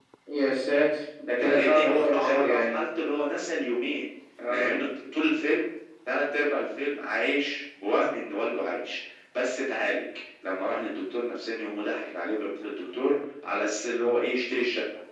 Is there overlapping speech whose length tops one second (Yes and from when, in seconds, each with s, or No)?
Yes, from 1.4 s